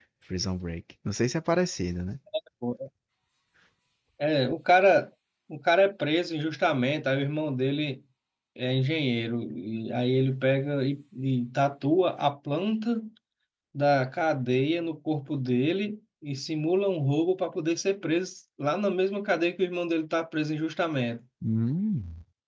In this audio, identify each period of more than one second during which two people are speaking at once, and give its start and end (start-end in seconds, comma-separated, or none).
none